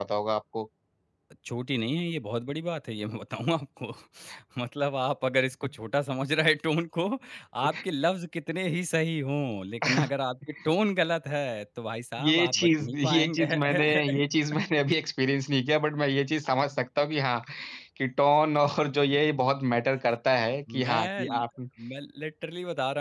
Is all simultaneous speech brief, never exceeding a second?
No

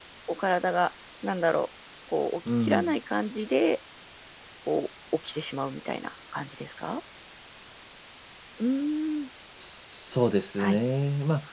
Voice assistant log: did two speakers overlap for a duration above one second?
No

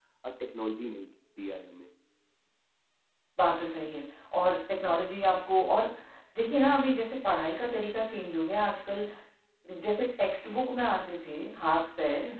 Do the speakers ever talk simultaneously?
No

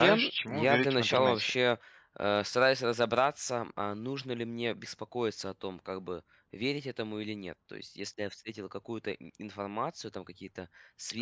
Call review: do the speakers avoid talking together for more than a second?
No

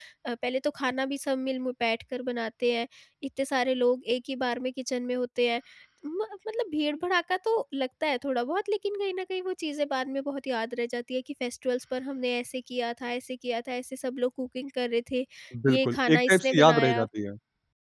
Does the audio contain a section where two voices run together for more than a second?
Yes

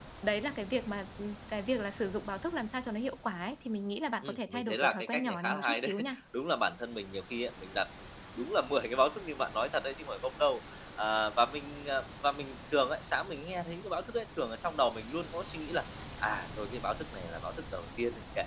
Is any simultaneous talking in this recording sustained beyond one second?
Yes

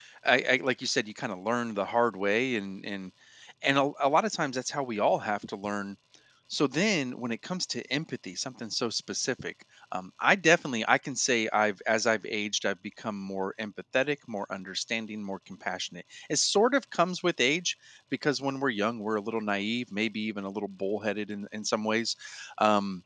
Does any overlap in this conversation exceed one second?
No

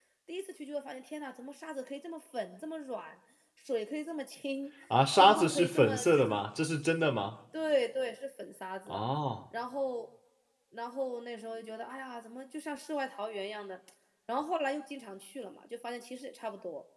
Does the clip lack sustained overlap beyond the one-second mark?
No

